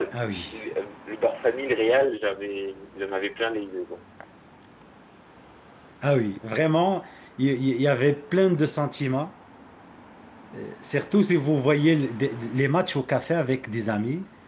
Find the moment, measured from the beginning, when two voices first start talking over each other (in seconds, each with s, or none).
none